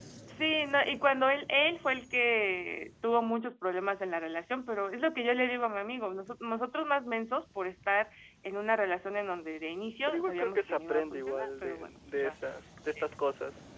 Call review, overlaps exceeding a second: present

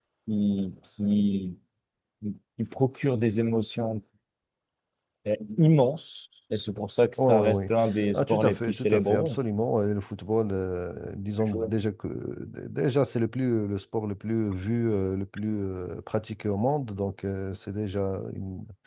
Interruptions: present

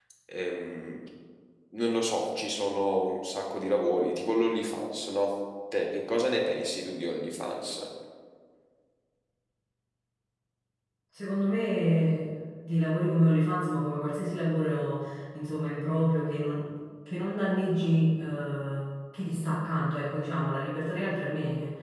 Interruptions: none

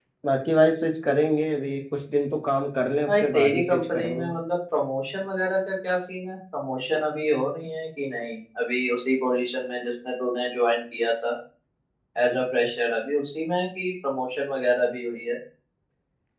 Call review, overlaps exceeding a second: present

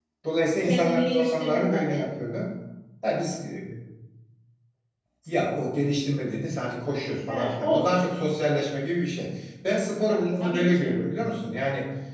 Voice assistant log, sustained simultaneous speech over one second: present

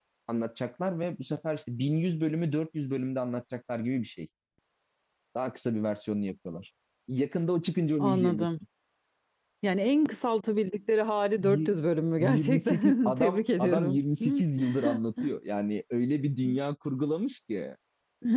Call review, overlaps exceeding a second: present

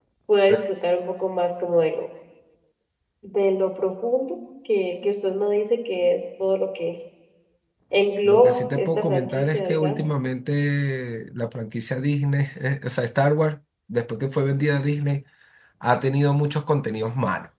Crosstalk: present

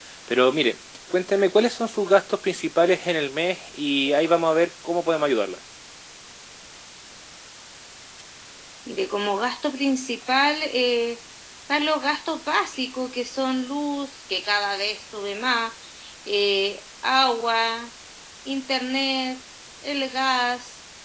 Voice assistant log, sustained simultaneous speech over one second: none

